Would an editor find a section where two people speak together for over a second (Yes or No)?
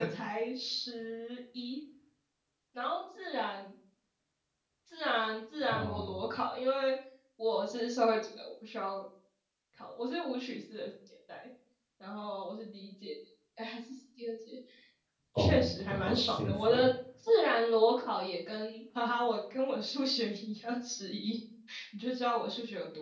Yes